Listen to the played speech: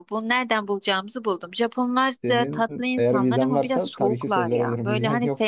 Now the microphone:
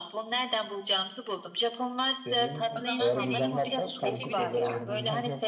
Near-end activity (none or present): present